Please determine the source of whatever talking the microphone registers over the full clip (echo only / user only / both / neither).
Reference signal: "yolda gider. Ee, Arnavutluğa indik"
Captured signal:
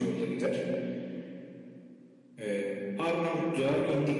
echo only